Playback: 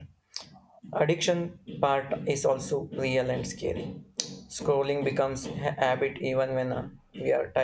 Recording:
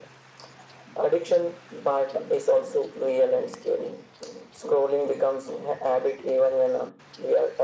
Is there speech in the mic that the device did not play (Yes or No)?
No